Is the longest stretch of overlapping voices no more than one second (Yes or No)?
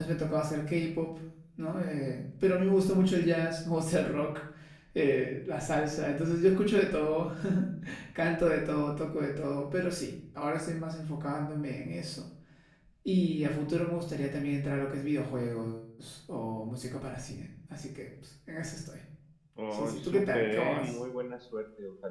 No